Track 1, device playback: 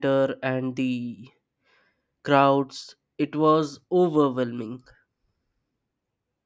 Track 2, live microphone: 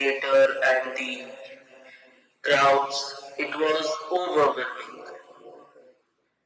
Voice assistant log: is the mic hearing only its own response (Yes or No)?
Yes